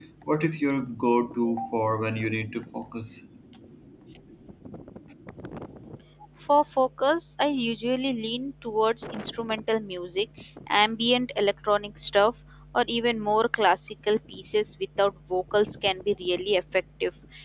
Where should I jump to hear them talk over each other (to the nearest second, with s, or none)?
none